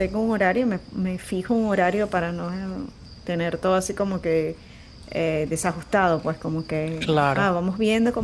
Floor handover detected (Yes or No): No